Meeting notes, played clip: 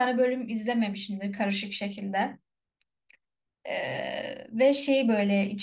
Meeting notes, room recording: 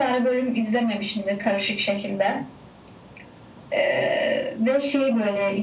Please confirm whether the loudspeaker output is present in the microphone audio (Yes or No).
Yes